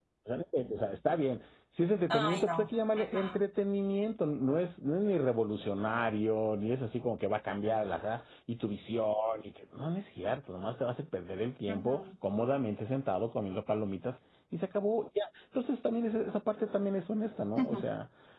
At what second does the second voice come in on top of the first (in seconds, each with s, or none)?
2.1 s